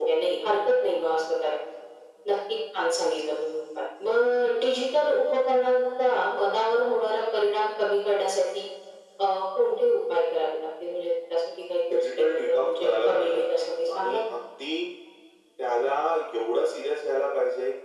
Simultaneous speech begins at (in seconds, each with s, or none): 11.9 s